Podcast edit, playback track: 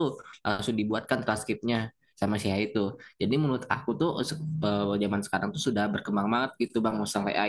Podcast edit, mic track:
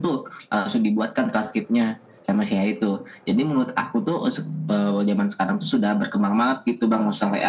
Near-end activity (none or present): none